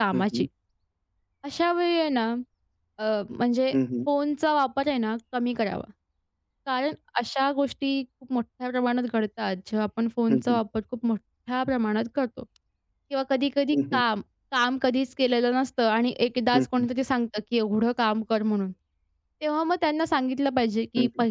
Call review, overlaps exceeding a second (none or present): none